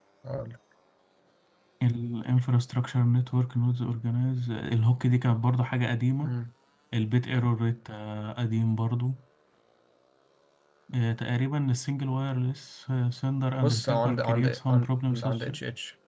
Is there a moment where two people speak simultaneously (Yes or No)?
Yes